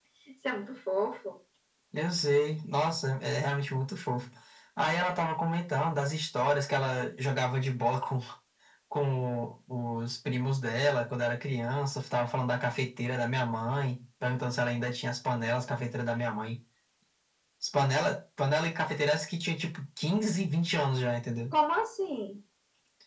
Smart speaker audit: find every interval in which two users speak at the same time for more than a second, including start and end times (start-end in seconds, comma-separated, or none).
none